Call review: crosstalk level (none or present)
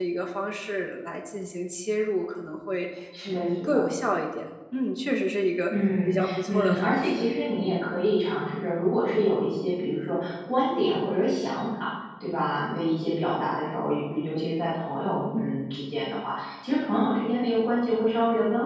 present